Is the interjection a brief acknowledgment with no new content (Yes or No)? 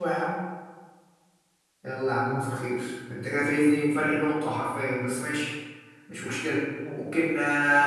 Yes